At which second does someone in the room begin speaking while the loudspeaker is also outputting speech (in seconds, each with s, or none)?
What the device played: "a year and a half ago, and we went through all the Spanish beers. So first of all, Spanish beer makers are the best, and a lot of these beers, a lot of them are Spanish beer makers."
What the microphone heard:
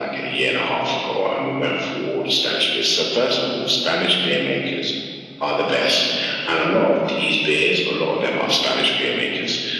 none